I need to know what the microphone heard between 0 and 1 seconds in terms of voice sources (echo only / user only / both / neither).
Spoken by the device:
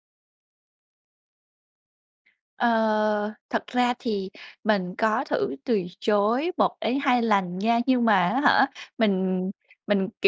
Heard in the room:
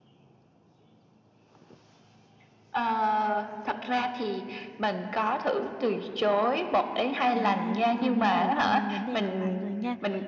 neither